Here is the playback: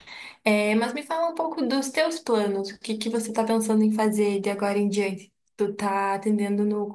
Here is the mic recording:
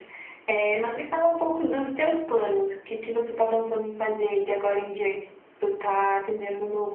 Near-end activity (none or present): none